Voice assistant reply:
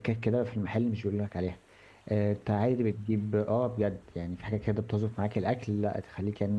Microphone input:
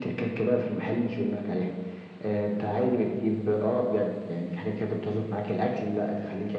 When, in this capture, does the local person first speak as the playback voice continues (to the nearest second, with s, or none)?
none